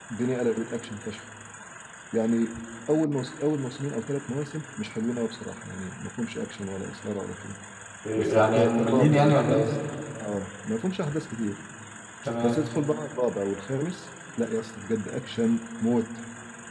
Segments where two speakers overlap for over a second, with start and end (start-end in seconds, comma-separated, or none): 8.2-9.7